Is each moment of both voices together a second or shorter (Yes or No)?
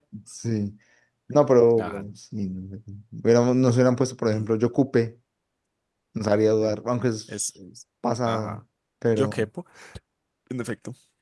Yes